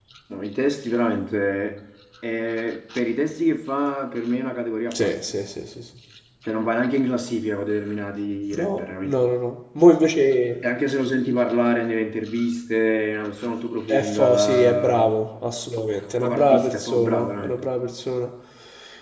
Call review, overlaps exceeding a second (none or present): present